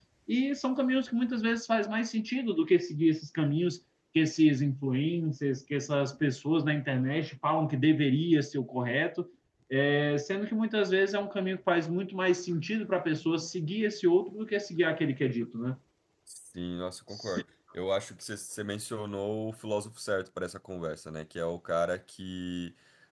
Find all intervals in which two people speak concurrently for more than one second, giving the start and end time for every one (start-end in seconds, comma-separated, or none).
none